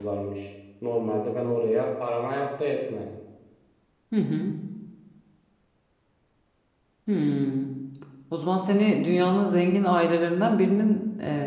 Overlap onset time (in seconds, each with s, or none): none